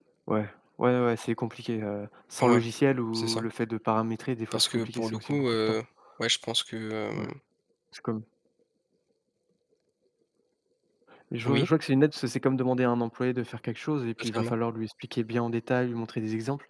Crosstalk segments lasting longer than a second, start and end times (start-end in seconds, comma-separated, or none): 4.5-5.8